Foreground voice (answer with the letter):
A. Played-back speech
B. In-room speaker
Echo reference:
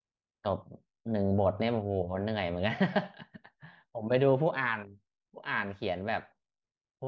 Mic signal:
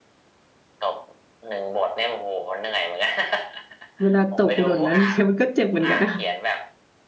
B